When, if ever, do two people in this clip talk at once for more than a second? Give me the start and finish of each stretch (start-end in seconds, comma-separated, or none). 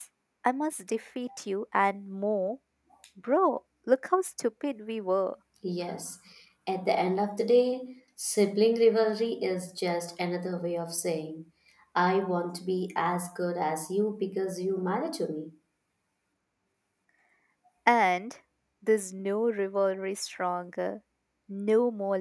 none